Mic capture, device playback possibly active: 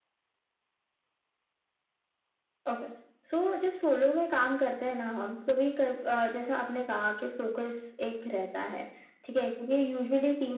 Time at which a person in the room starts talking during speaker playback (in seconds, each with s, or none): none